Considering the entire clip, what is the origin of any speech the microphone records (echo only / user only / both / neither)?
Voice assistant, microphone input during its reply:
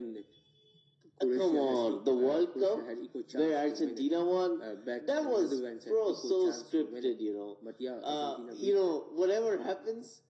echo only